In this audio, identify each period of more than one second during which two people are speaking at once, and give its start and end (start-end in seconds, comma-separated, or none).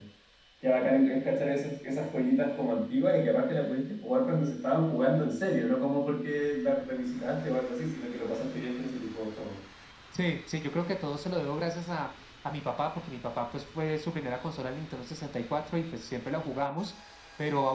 none